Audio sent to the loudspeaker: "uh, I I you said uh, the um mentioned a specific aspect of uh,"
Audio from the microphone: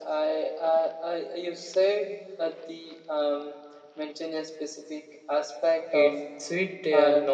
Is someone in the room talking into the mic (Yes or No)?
Yes